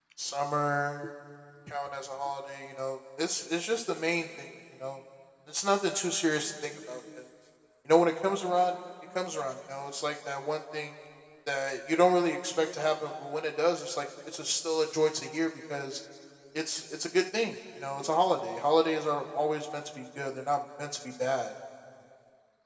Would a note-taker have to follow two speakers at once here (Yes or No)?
No